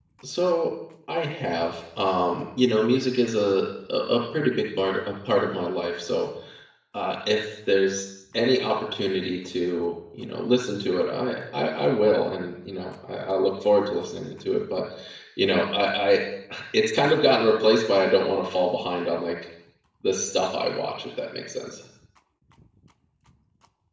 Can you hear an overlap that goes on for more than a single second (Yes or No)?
No